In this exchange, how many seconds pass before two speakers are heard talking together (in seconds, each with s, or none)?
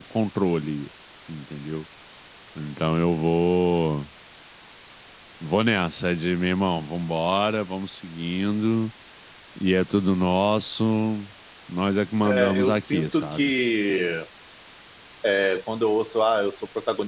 12.2 s